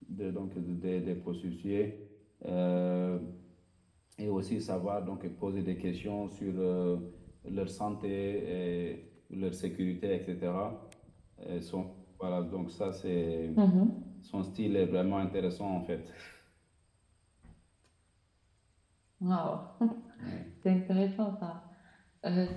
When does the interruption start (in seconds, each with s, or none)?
none